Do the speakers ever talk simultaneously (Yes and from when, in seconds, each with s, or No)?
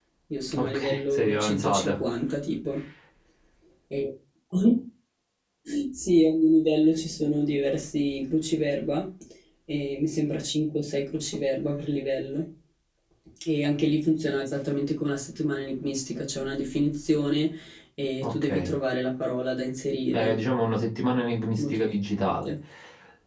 Yes, from 0.6 s